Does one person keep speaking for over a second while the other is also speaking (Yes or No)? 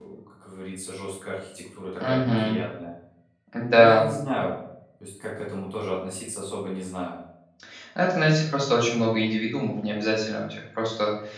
No